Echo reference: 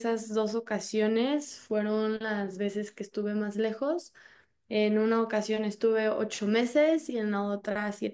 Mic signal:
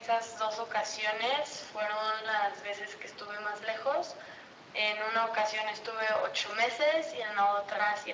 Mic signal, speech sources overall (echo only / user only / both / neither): echo only